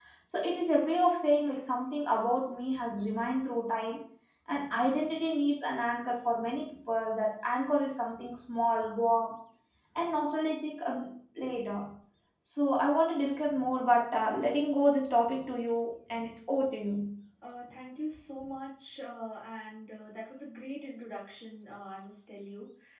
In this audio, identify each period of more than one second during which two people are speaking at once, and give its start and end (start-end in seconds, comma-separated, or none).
none